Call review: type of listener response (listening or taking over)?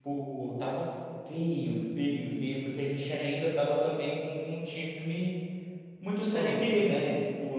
listening